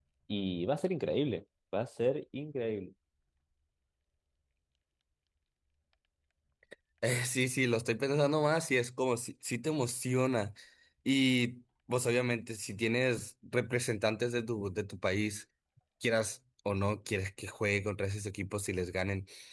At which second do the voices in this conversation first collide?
none

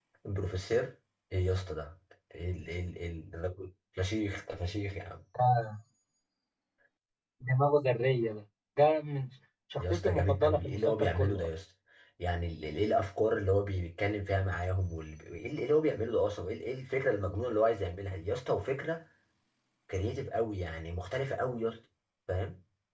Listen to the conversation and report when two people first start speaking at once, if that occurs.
9.8 s

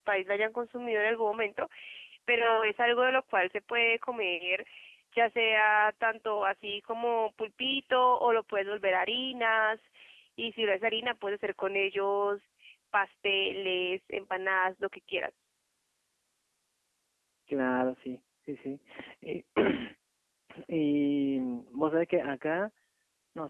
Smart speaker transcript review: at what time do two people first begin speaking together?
none

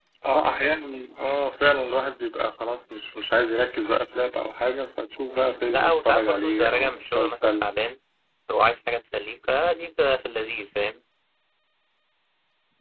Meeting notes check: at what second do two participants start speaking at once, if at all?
5.3 s

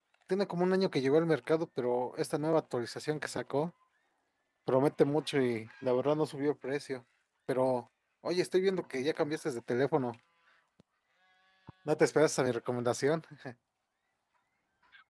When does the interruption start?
none

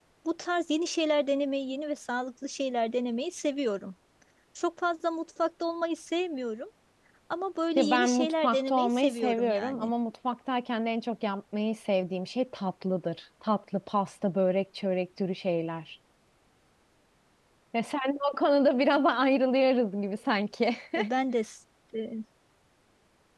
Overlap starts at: 7.8 s

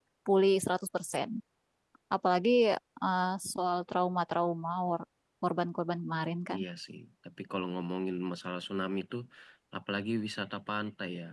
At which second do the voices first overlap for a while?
none

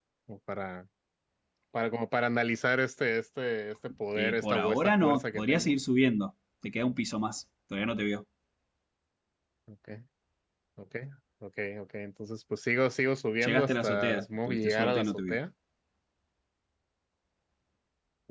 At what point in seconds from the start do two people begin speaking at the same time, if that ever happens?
4.2 s

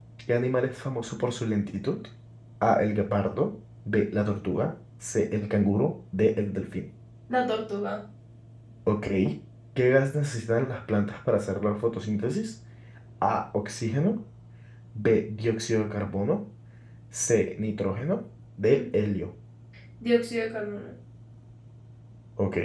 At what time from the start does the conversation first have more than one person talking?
none

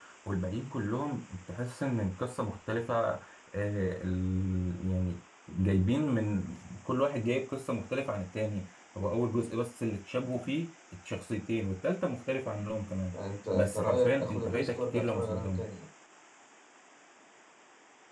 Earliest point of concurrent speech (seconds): 13.5 s

